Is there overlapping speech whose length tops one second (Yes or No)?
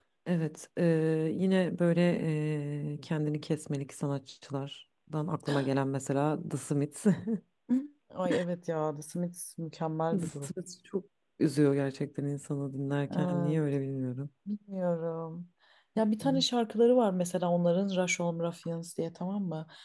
No